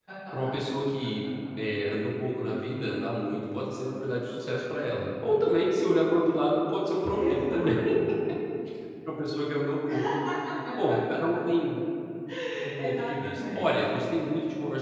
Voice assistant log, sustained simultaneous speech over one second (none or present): present